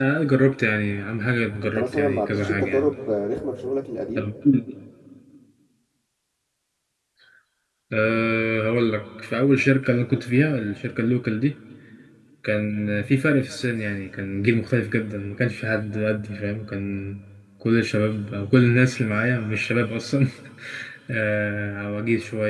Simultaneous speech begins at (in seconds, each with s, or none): 1.6 s